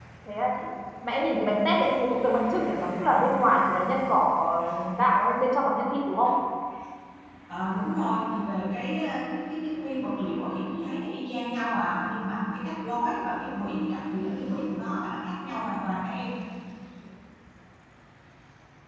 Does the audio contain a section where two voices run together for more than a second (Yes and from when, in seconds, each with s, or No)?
No